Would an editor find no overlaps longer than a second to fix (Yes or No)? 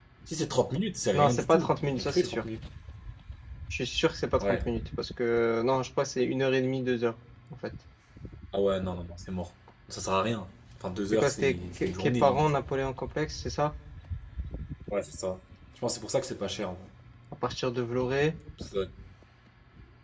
No